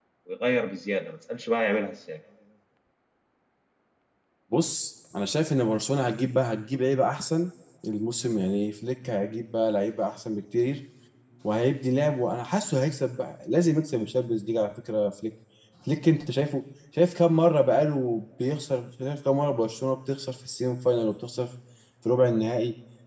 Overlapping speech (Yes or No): No